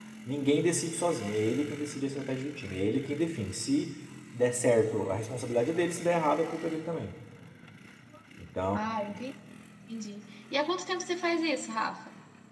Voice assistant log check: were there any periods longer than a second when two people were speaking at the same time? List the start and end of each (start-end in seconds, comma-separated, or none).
none